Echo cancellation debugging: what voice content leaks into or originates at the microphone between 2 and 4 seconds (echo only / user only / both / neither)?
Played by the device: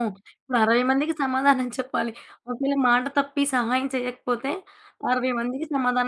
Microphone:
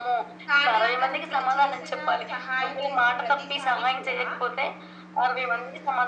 both